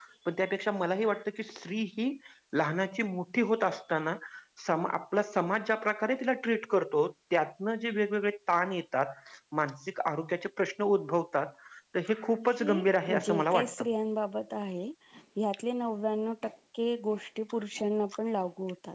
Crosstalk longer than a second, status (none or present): present